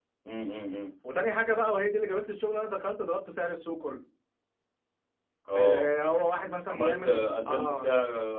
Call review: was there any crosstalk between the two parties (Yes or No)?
Yes